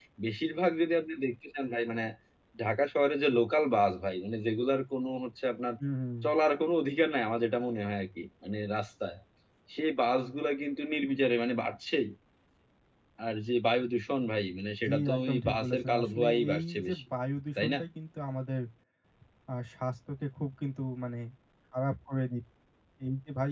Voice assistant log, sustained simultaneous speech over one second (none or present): present